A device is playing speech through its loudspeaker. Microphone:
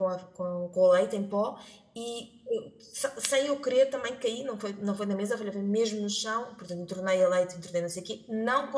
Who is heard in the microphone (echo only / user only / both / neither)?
user only